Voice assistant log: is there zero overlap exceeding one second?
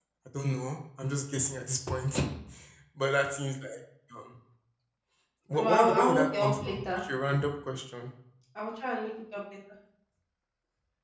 No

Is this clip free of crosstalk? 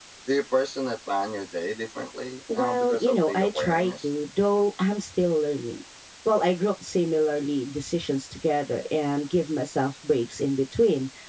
No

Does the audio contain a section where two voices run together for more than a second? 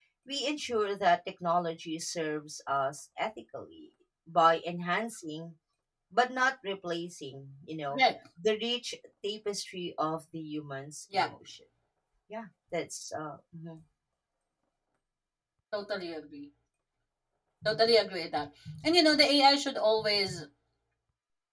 No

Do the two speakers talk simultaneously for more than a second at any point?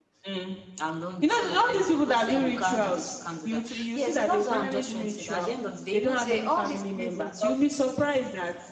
Yes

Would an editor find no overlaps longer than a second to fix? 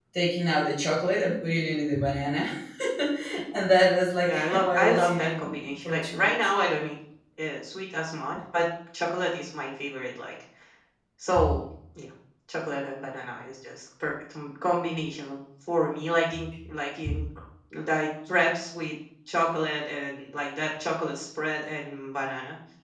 No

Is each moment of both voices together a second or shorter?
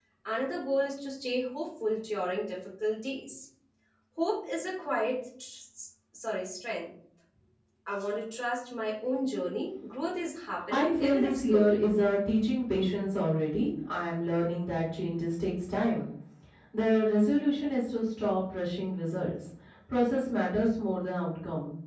No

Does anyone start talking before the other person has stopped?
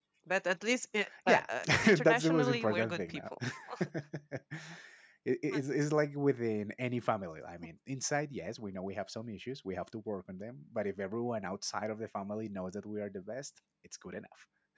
Yes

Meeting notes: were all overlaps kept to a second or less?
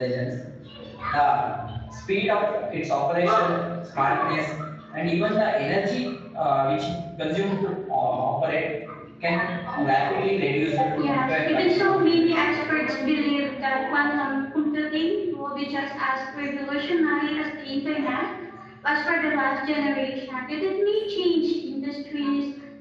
No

